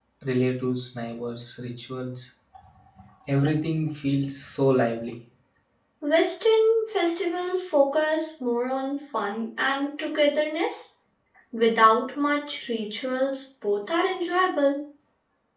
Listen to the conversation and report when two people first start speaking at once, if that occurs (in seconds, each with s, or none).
none